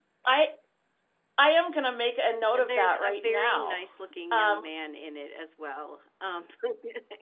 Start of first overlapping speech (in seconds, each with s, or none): 2.6 s